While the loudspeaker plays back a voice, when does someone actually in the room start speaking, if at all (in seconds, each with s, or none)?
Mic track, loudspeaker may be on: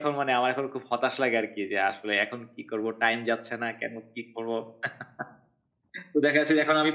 none